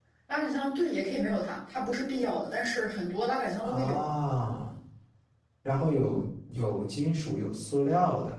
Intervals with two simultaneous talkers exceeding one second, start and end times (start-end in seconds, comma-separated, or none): none